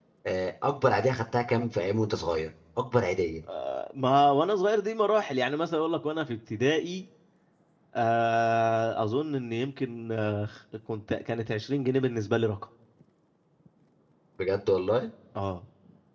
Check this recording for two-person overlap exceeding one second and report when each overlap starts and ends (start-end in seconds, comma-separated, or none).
none